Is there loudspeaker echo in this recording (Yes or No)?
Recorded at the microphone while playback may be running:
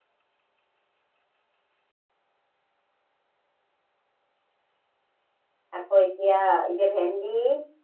No